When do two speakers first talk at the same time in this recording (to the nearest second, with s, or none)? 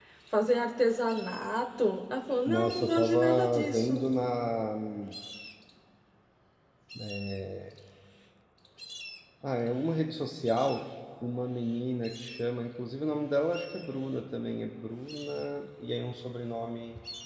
2 s